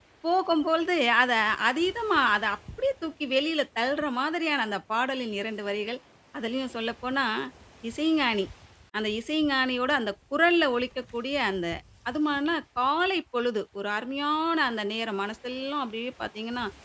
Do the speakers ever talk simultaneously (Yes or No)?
No